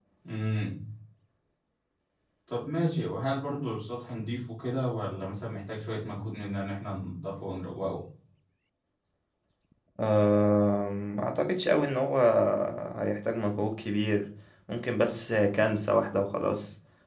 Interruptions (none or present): none